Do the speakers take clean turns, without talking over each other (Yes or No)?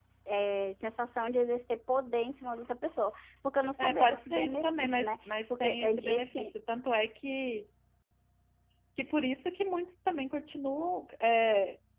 No